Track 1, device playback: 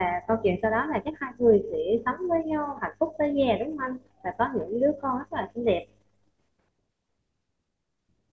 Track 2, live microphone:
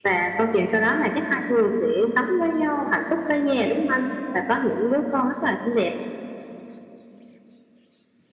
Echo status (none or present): present